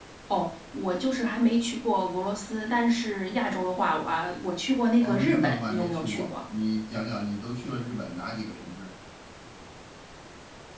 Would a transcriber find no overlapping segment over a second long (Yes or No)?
No